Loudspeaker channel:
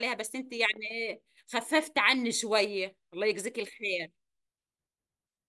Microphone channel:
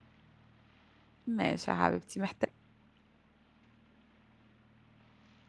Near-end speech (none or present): present